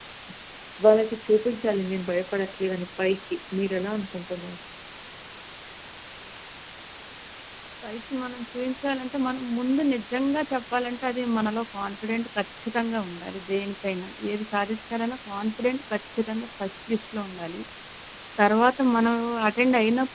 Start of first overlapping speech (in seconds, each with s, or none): none